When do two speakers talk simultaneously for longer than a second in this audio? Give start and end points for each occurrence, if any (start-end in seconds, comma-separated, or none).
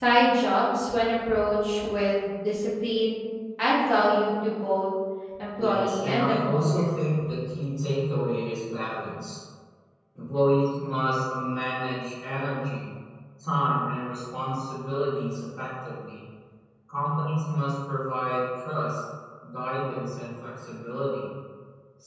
5.6-7.0